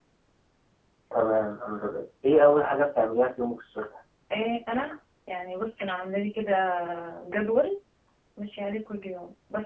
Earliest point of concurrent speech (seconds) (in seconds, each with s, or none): none